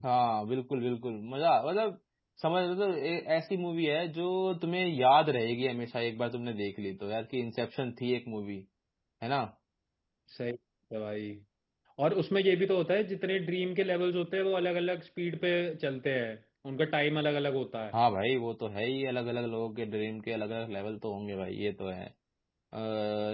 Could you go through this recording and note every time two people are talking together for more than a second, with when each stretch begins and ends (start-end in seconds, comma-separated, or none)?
none